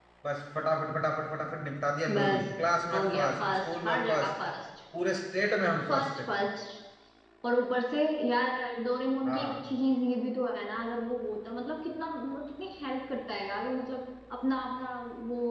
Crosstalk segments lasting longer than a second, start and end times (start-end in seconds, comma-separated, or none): 2.9-4.3